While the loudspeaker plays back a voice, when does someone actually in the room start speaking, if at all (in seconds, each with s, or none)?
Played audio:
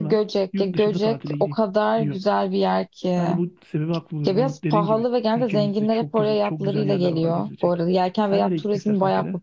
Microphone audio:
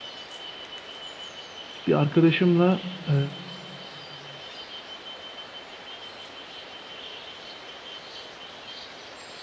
1.9 s